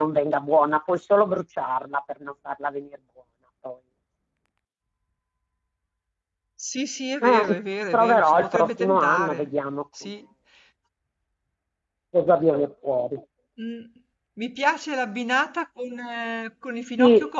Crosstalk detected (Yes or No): Yes